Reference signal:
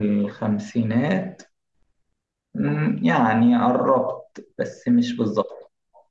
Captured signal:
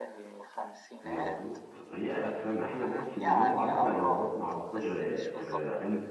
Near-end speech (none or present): present